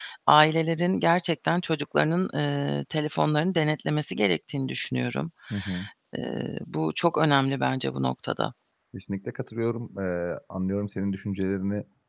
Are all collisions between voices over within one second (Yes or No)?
Yes